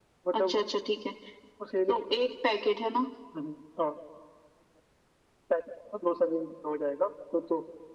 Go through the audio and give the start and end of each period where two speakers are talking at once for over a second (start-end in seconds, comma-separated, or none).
none